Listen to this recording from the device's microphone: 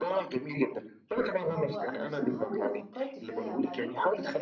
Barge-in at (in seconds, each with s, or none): 1.5 s